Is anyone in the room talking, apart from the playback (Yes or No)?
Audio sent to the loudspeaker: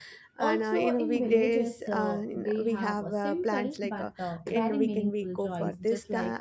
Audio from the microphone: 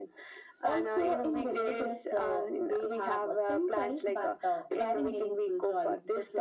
No